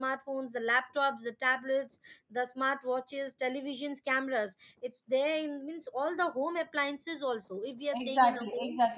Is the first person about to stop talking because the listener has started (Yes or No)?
Yes